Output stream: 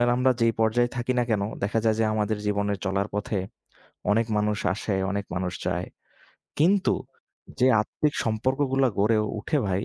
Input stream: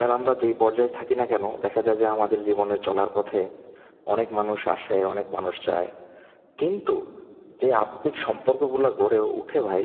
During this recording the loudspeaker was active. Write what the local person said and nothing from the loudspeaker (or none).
none